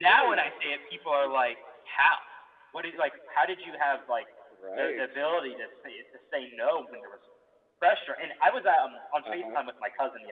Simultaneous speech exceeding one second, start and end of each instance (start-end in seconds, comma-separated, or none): none